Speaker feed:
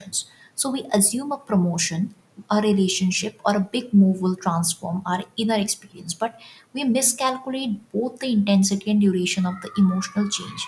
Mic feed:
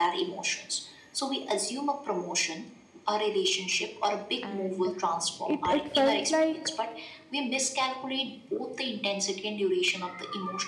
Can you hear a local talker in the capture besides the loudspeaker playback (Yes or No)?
Yes